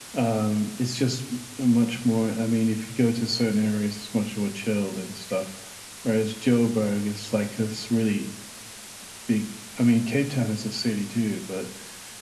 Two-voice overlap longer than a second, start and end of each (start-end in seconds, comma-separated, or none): none